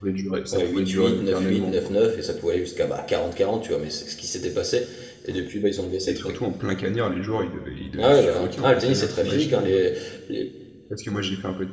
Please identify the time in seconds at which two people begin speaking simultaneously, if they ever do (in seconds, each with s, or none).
0.5 s